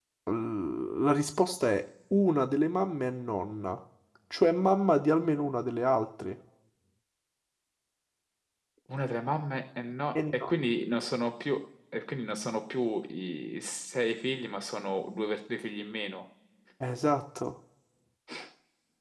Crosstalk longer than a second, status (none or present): none